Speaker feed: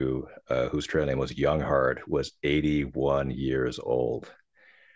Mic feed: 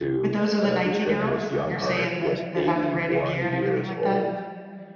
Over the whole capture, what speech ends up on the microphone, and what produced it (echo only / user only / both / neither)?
both